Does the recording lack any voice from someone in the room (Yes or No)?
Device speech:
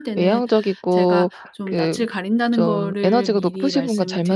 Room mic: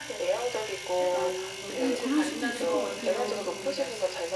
No